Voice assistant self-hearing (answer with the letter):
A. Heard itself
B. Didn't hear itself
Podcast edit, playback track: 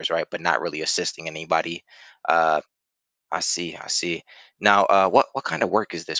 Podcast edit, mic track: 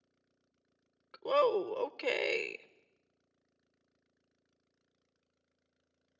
B